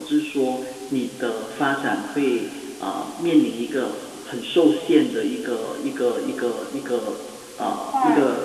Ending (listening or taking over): listening